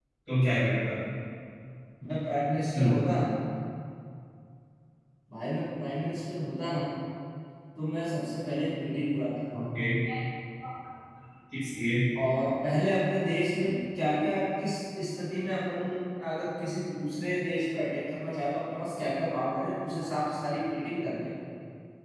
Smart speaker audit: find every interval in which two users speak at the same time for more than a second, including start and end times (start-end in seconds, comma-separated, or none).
none